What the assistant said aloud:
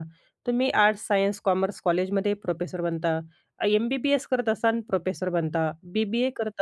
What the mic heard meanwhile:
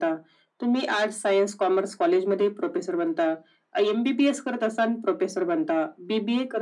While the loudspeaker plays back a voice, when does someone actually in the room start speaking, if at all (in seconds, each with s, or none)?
none